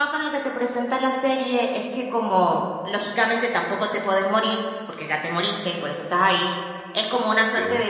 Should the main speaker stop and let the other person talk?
No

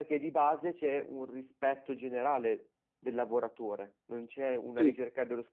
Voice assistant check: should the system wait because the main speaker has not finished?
Yes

